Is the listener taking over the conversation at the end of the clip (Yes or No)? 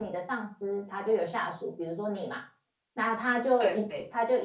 No